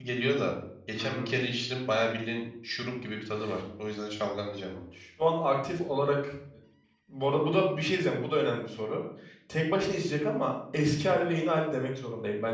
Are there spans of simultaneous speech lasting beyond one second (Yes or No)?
No